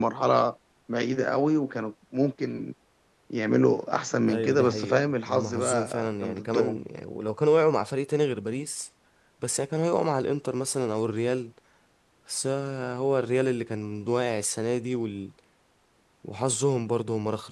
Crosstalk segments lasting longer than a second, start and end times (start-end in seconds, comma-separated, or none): 4.3-6.8